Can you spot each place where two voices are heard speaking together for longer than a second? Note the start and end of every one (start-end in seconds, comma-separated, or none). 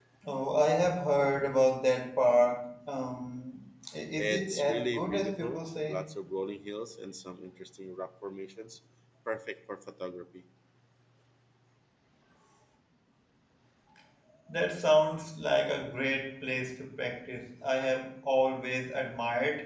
4.2-6.0